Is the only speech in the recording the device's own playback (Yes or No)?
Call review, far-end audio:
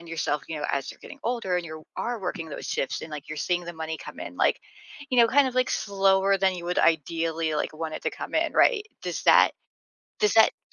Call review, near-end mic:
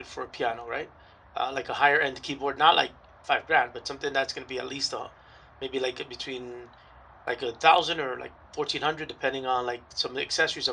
No